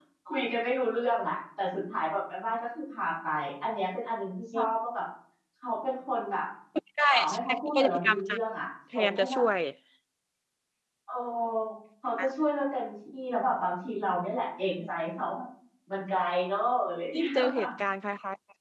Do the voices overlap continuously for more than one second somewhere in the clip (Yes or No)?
Yes